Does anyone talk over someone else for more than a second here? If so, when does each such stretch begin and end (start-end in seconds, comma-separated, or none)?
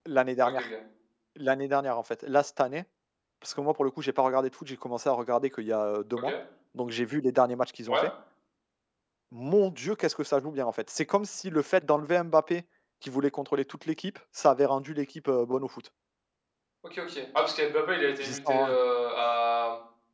none